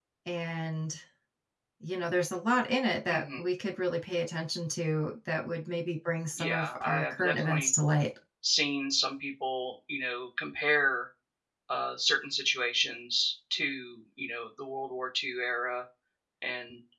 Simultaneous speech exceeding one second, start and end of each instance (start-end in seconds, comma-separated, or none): 6.4-7.7